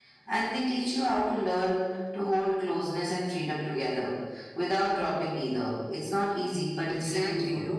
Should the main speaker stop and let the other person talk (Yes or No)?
Yes